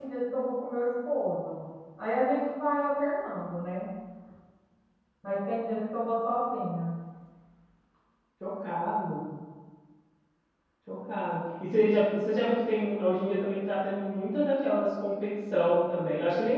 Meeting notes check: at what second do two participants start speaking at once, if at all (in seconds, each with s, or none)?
none